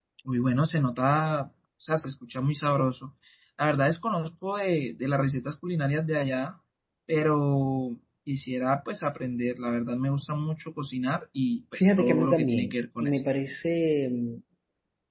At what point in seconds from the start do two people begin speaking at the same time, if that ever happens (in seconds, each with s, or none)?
11.7 s